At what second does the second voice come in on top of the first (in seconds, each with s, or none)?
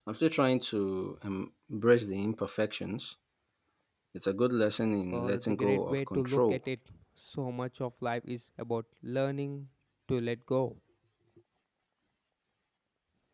5.1 s